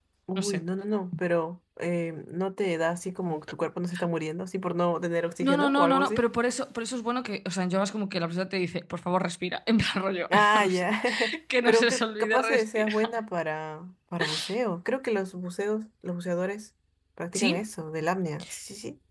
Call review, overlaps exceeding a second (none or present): present